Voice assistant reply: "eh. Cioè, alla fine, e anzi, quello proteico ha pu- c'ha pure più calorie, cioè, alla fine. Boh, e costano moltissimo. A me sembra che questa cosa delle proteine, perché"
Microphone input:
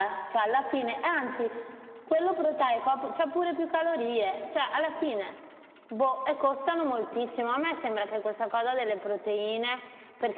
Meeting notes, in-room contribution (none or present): none